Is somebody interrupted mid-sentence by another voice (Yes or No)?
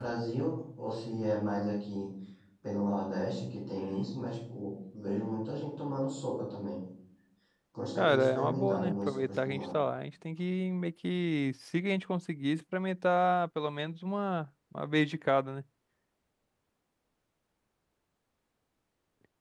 Yes